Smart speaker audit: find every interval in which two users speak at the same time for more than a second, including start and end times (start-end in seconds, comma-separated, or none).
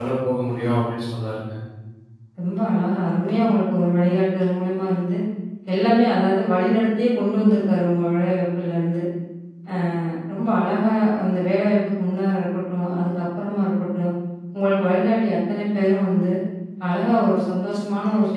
none